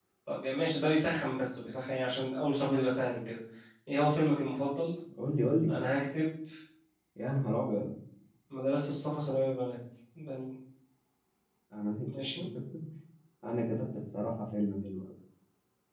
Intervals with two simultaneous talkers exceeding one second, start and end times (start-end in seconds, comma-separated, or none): none